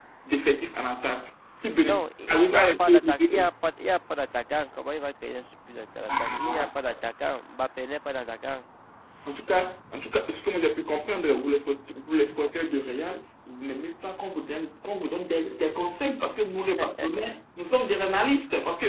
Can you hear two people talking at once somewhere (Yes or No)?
Yes